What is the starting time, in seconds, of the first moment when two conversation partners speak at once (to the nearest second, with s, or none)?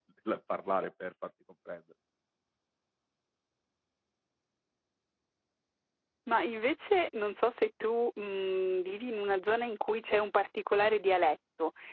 none